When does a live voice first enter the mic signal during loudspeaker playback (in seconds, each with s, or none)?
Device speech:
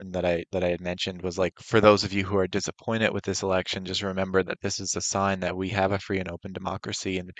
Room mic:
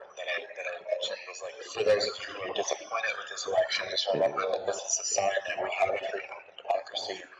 4.1 s